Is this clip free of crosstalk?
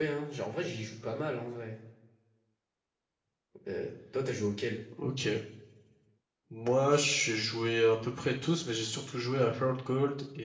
Yes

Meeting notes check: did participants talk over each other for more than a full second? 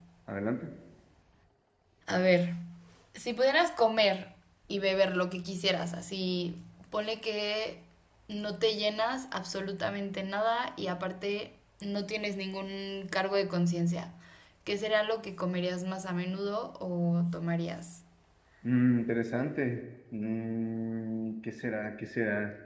No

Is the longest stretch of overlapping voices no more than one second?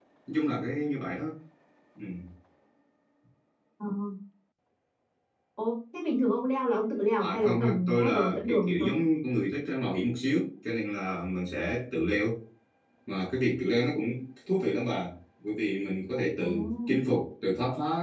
No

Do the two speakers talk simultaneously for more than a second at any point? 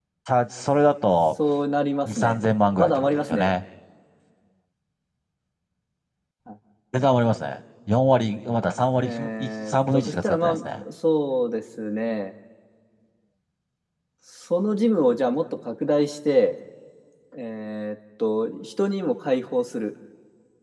Yes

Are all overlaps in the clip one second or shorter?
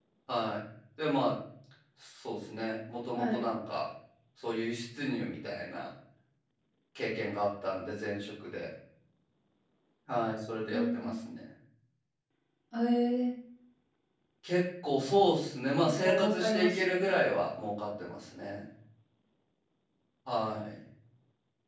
No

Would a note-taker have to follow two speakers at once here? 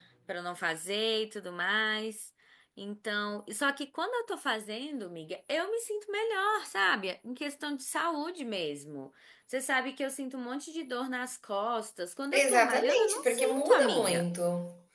Yes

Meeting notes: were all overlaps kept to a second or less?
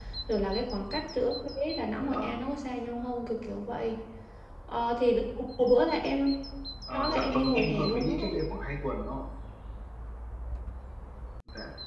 No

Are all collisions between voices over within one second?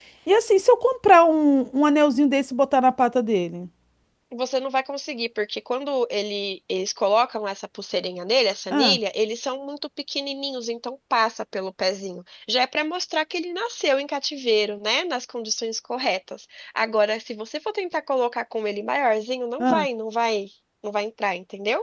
Yes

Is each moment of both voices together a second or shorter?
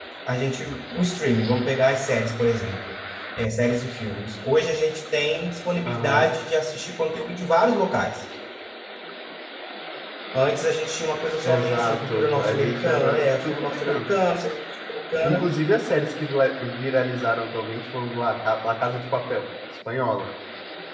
No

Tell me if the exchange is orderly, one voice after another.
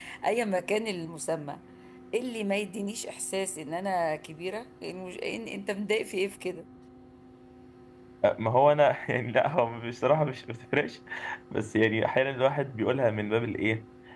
Yes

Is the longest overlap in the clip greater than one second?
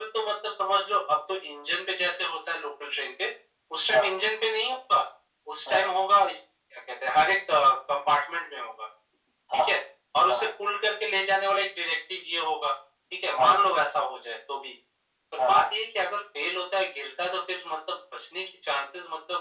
No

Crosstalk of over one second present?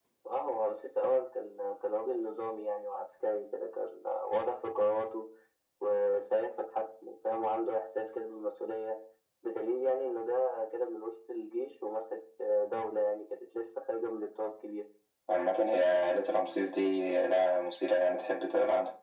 No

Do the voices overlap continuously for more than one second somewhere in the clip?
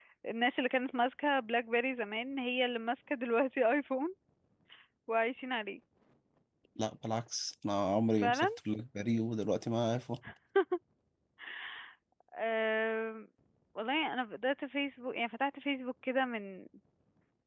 No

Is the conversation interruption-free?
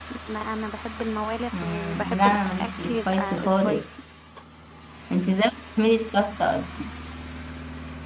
No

